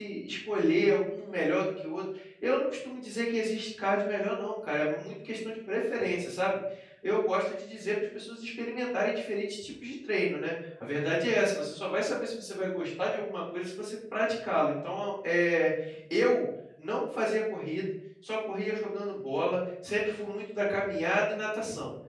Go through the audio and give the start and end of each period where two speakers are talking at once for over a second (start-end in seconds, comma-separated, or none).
none